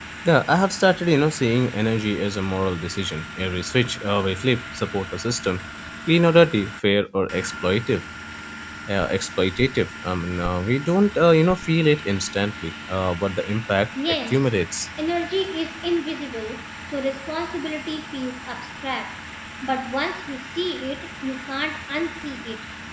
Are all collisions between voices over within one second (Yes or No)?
Yes